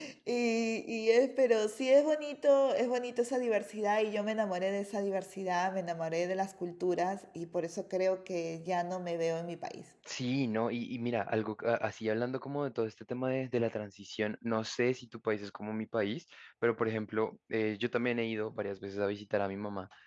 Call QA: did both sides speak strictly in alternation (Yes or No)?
Yes